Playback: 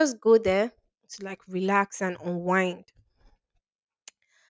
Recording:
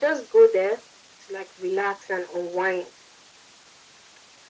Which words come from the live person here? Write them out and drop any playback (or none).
none